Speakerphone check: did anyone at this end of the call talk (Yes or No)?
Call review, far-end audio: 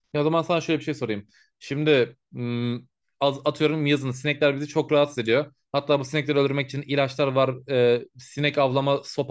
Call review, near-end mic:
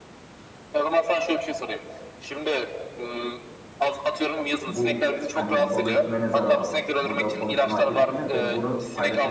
Yes